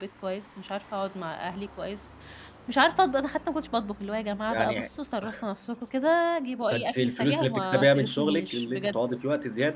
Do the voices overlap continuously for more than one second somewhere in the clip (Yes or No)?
Yes